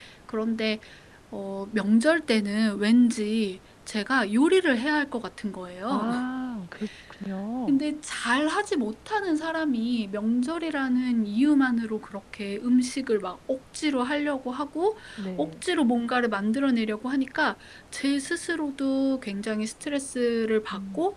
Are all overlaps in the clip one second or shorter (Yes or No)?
Yes